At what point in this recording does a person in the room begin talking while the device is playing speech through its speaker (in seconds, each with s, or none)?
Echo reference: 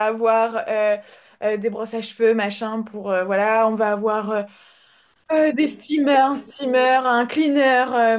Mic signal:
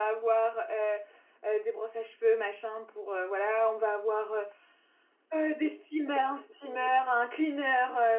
none